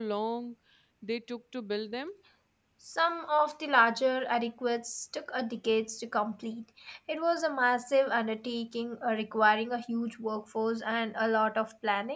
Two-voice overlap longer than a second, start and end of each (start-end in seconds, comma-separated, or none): none